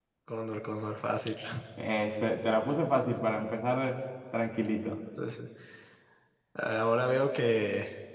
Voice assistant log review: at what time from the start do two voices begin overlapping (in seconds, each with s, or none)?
none